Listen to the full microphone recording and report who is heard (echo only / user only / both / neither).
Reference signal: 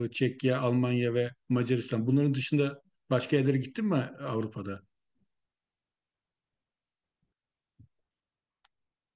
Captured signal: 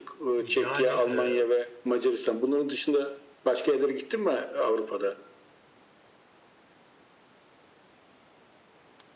both